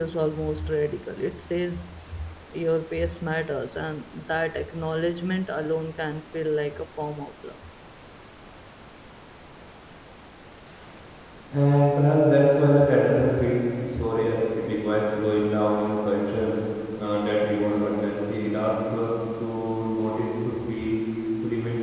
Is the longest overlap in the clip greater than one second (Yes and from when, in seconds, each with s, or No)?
No